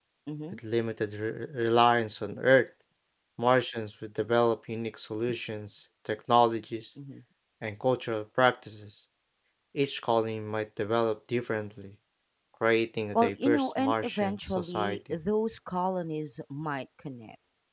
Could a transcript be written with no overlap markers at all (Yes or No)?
No